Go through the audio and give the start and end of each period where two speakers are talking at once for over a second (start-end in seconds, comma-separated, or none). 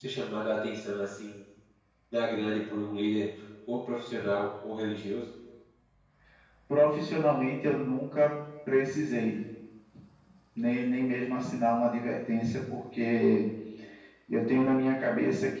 none